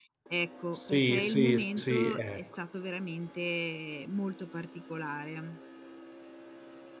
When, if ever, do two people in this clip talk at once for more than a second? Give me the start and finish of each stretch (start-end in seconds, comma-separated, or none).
0.9-2.4